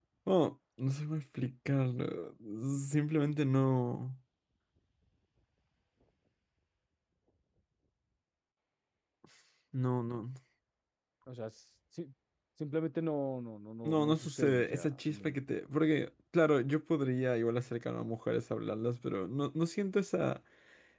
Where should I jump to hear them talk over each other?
14 s

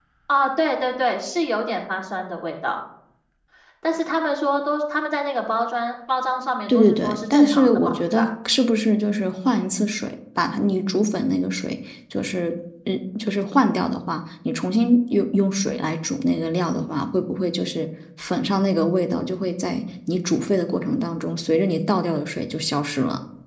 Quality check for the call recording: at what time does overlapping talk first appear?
7 s

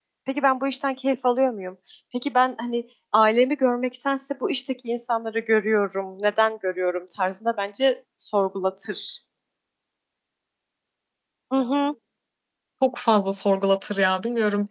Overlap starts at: none

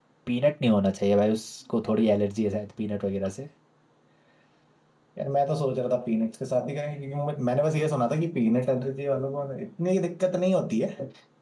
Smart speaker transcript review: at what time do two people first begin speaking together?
none

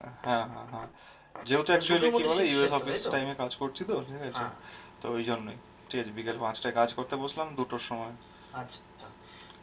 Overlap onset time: 2 s

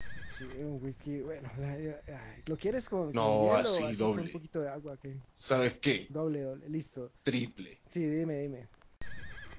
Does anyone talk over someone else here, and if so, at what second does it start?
3 s

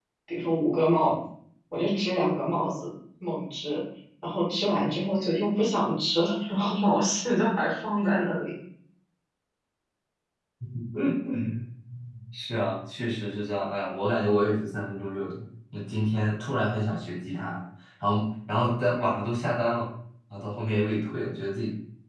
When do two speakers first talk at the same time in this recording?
none

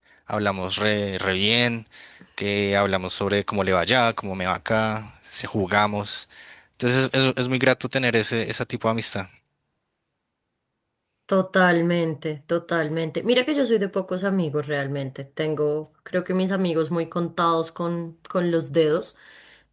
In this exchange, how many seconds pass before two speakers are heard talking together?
none

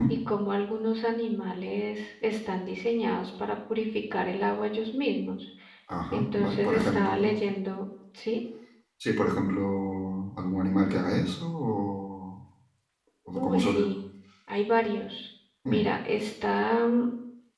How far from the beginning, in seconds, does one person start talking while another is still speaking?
6 s

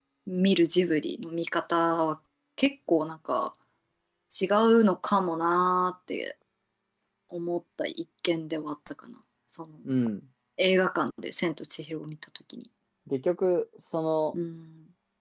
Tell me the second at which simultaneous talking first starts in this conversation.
none

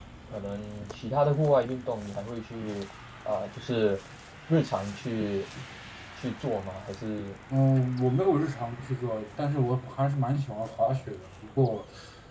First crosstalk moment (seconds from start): none

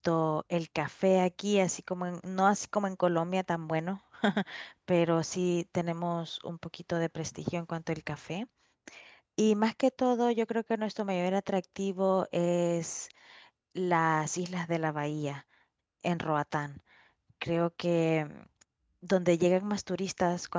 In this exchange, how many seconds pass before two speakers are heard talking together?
none

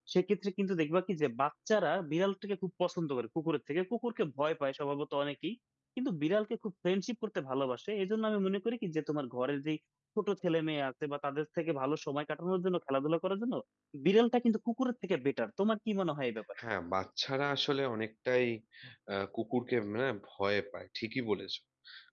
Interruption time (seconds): none

